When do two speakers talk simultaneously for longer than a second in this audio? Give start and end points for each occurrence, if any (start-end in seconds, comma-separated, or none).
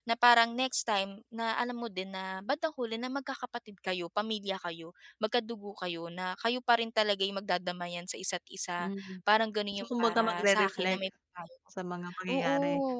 9.8-11.0